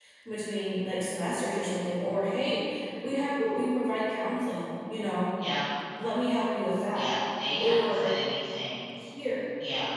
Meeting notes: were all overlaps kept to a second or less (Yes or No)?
Yes